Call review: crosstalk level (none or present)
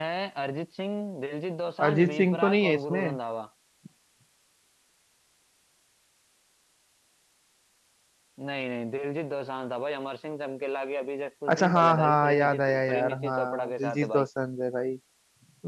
present